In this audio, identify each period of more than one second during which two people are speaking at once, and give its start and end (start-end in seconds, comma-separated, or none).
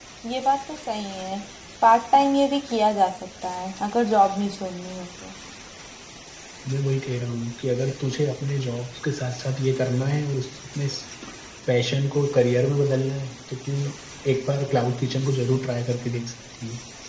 none